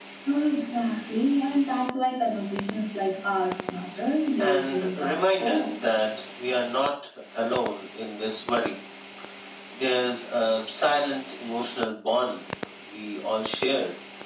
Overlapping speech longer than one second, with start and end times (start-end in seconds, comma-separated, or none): 4.4-5.6